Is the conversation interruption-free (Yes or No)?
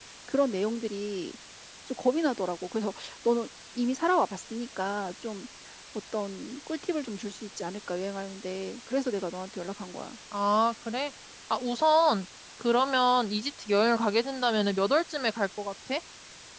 Yes